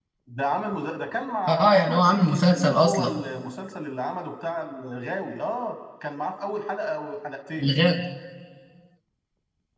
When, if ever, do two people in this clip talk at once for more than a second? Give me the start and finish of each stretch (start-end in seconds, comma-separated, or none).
1.5-3.2